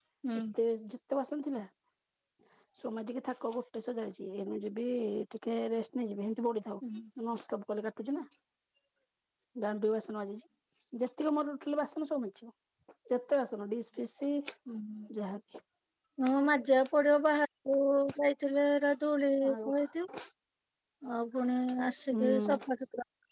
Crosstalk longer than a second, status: none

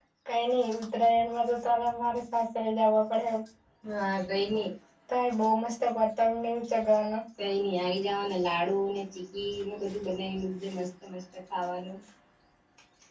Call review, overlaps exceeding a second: none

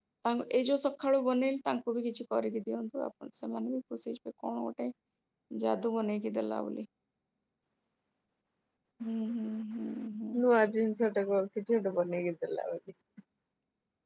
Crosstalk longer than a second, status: none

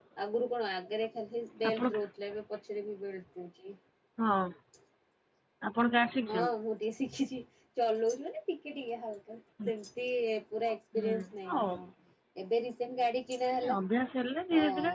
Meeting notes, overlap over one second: none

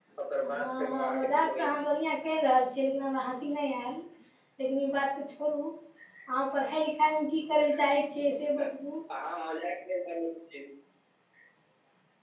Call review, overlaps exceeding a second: present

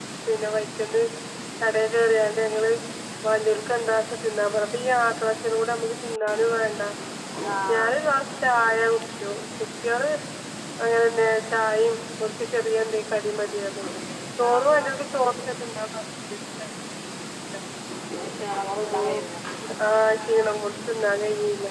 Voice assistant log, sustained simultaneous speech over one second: none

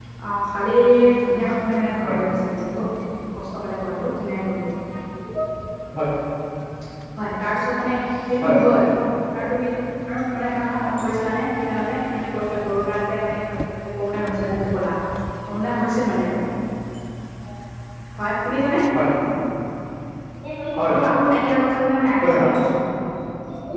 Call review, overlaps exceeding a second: none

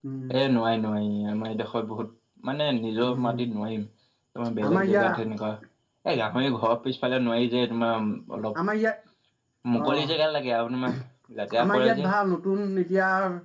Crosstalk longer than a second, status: none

